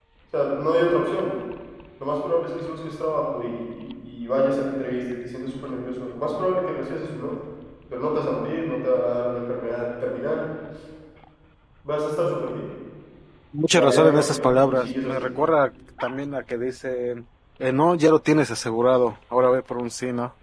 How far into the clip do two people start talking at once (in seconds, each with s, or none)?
13.7 s